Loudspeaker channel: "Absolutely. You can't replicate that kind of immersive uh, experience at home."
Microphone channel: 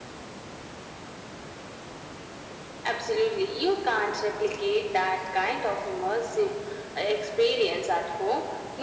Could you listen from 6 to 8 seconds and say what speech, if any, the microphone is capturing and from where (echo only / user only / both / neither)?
echo only